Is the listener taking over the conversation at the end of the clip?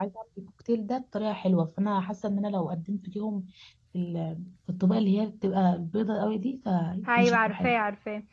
Yes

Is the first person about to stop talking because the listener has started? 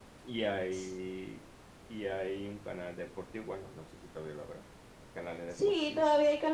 Yes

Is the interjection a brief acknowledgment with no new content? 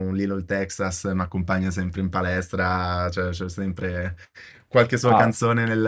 Yes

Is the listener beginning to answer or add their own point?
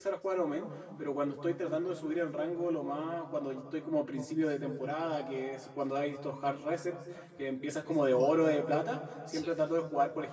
No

